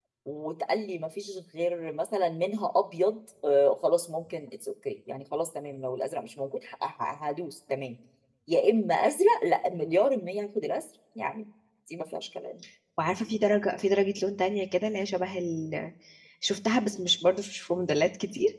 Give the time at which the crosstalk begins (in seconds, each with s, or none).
none